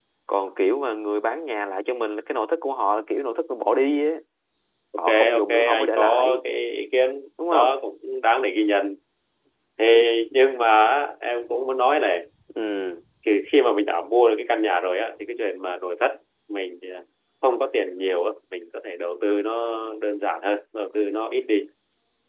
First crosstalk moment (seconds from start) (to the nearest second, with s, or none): 5 s